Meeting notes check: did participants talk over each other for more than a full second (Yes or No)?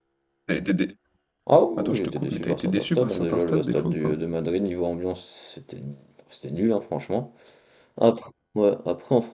Yes